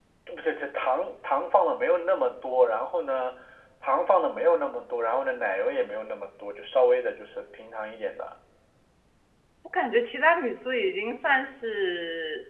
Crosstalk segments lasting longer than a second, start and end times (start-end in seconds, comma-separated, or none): none